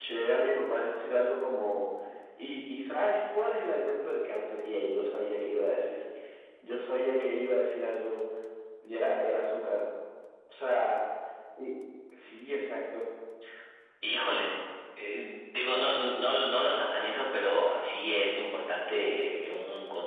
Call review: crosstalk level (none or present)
none